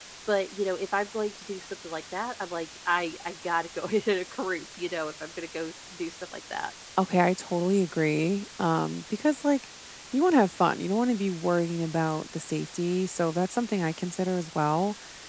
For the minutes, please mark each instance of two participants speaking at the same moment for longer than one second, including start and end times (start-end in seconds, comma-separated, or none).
none